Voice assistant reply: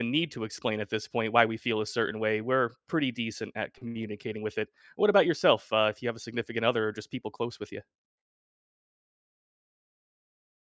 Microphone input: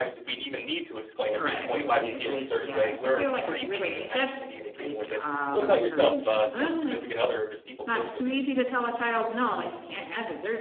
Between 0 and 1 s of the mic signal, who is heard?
echo only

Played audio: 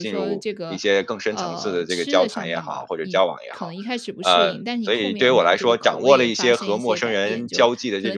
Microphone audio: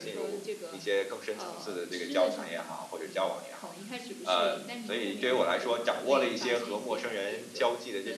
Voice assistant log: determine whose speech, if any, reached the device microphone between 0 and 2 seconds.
echo only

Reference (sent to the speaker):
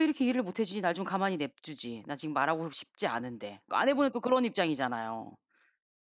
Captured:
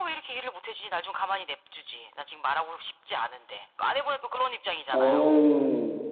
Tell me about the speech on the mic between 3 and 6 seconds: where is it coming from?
both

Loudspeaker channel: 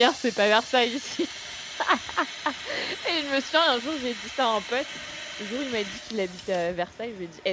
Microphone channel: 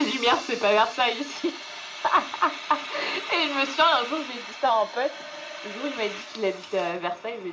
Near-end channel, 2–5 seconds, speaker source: echo only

